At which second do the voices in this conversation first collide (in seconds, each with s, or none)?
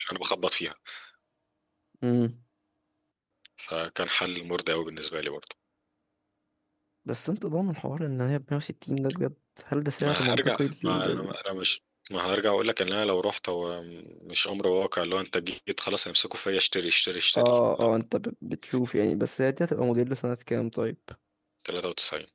10.0 s